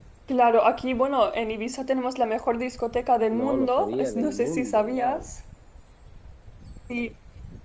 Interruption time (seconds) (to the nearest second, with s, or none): 3 s